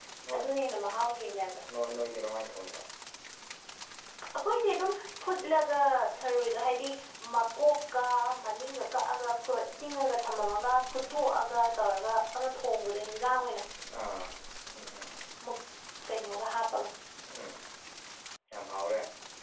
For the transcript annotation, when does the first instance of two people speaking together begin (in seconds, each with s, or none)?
none